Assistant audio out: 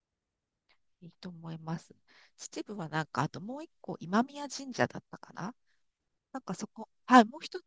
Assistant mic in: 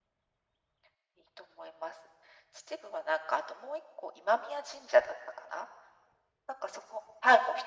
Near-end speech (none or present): none